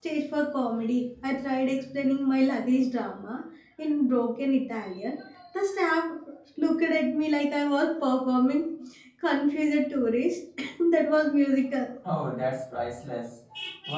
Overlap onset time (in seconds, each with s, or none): none